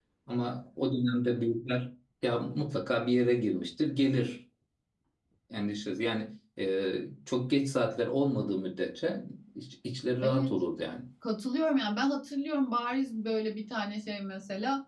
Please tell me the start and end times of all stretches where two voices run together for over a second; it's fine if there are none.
none

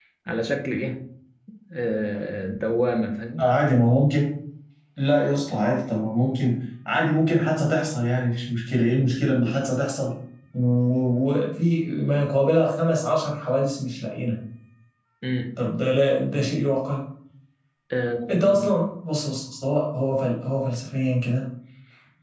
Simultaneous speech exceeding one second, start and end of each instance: none

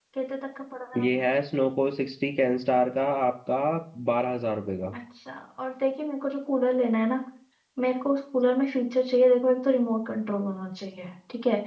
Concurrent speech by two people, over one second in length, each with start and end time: none

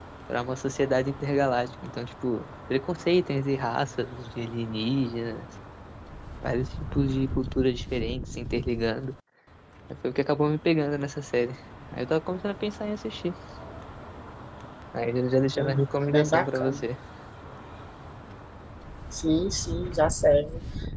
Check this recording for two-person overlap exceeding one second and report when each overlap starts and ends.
15.6-16.8

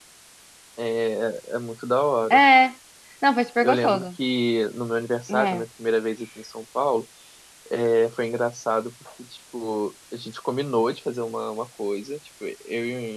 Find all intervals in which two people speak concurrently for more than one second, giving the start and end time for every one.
none

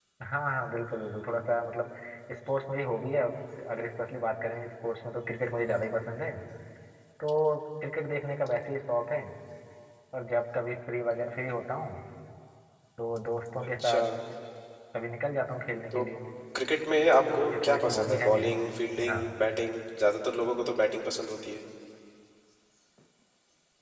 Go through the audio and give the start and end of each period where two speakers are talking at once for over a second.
17.2-18.5

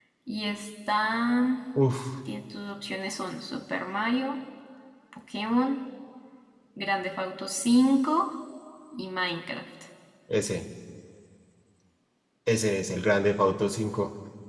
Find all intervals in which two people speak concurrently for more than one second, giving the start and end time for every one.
none

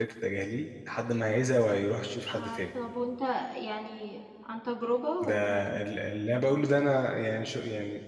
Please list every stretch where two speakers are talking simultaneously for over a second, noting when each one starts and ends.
none

